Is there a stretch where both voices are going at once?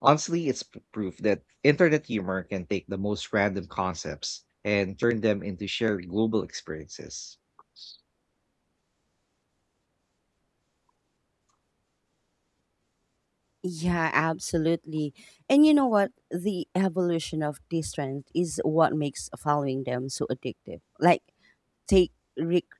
No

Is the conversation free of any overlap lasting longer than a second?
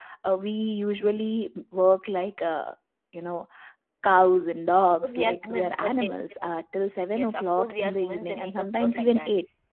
No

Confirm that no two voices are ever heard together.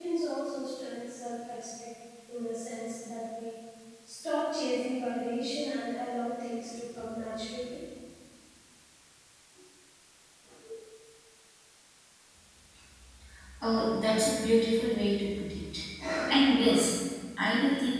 Yes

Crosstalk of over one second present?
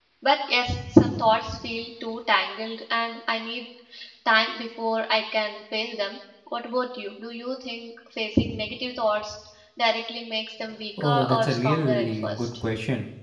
Yes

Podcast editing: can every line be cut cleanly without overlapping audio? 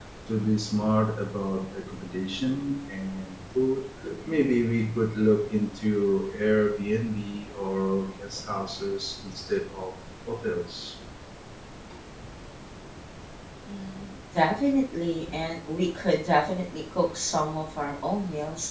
Yes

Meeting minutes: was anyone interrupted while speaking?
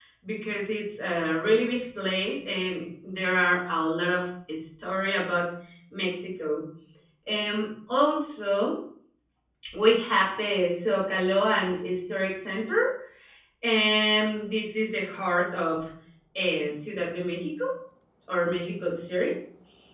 No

